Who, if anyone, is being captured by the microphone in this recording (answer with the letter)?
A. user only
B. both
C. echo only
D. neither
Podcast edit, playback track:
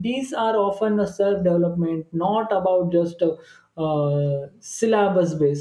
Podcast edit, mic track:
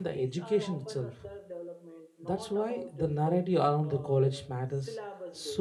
B